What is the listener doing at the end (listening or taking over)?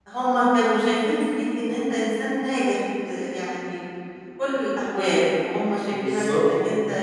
listening